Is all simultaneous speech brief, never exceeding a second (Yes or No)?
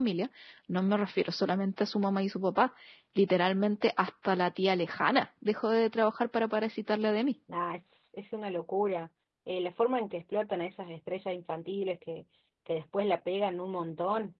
Yes